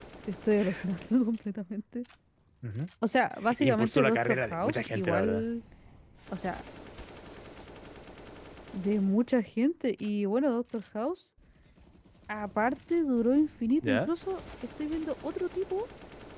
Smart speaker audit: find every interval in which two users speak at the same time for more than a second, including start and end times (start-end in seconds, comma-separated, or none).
3.6-5.4